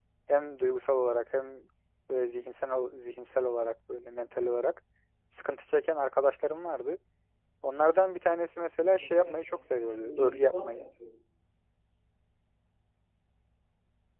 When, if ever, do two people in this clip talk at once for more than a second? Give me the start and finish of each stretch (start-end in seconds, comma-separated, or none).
9.0-10.8